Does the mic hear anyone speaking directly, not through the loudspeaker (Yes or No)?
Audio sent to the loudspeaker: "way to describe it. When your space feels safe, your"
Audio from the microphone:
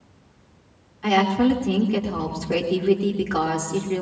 Yes